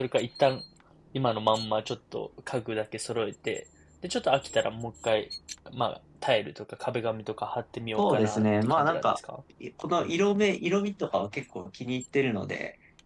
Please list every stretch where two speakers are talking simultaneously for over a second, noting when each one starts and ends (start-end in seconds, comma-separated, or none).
8.0-9.2